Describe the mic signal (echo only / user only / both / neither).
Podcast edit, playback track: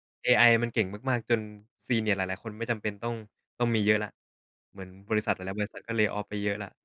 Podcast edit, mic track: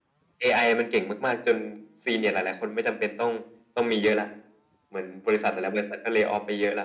echo only